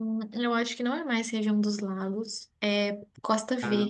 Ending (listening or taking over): listening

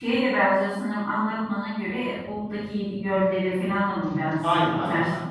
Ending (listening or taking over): taking over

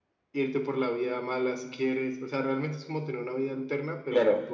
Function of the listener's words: taking over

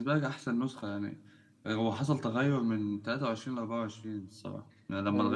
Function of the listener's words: taking over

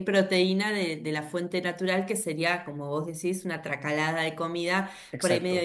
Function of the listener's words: listening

